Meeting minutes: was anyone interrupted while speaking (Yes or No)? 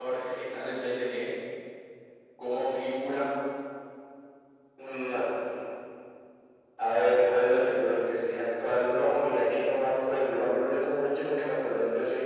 No